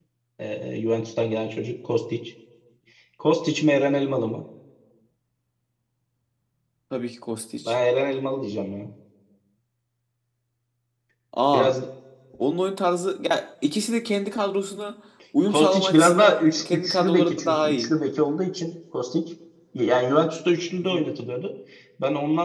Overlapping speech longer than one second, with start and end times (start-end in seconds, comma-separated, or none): 15.5-17.9